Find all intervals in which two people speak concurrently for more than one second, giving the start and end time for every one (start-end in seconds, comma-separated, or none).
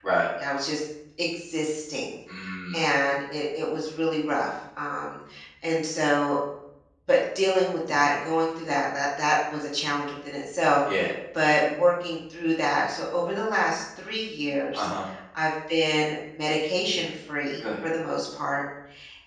none